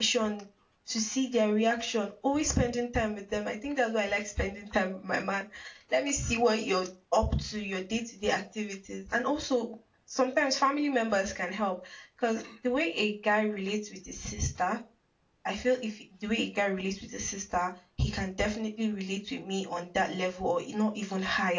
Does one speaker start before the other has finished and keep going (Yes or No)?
No